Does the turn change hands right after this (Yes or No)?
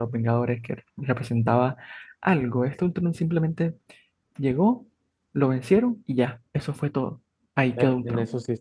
Yes